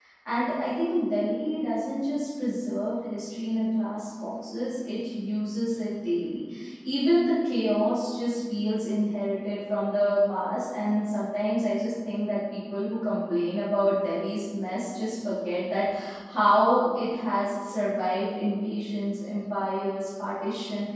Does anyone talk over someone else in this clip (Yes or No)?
No